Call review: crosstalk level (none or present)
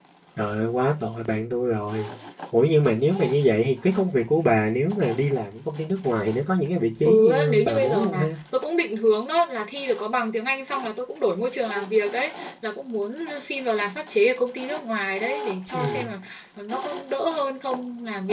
present